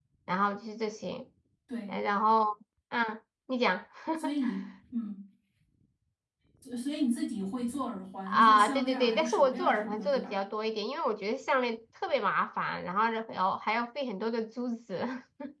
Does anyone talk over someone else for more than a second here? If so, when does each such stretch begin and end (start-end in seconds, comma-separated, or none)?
8.3-10.4